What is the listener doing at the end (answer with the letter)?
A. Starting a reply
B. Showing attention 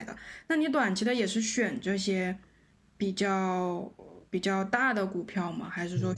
A